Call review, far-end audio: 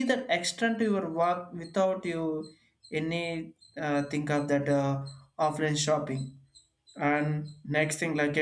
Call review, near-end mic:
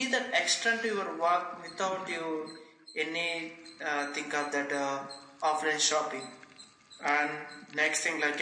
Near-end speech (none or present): none